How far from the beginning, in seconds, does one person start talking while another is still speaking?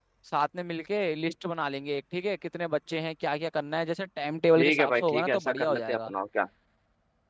4.6 s

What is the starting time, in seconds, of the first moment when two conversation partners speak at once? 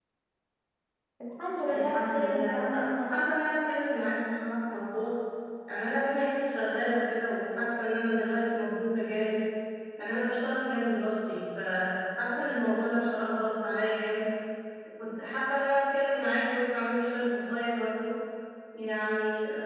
1.7 s

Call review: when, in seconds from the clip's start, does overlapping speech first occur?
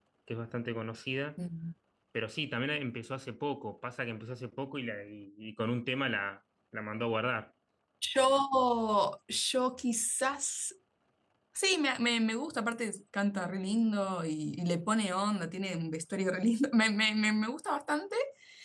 none

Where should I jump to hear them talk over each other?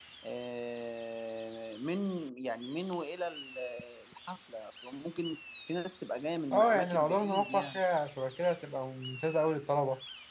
6.5 s

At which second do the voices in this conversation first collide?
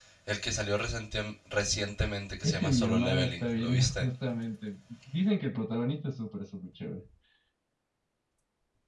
2.4 s

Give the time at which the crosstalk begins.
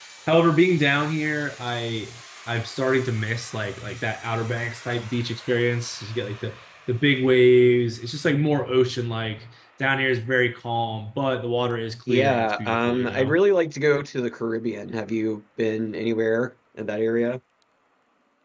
12.1 s

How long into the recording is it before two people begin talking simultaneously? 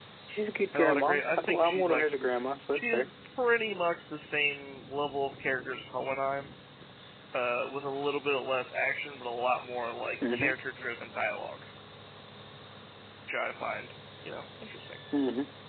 0.7 s

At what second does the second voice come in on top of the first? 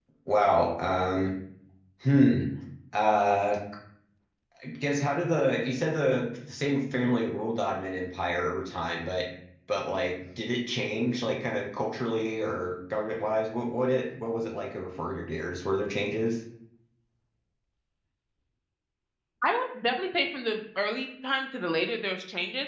none

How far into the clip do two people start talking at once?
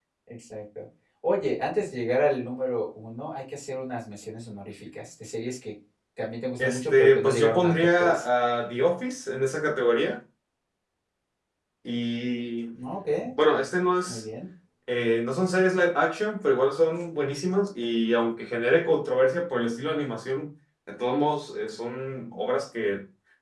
6.6 s

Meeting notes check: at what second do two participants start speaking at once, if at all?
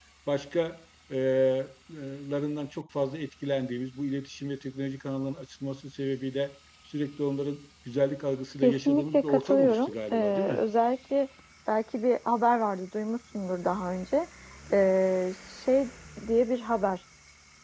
8.6 s

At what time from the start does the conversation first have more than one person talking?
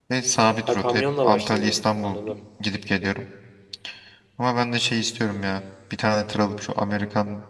0.7 s

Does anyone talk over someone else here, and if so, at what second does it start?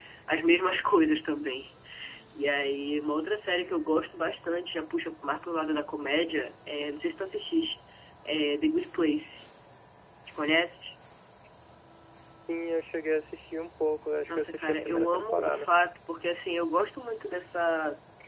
14.3 s

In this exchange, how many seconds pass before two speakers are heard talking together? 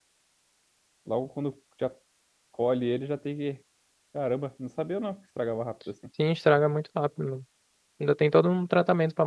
none

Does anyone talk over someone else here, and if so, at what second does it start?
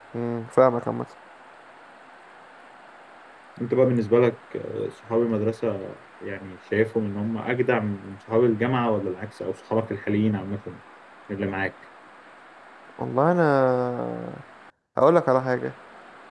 none

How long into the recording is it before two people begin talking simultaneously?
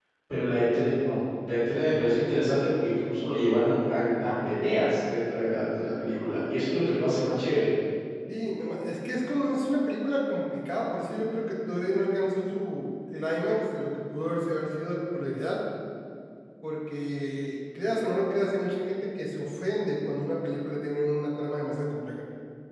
none

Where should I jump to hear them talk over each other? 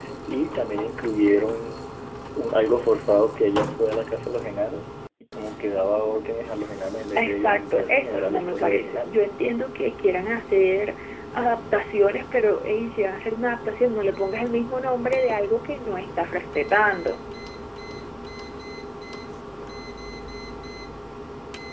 7.2 s

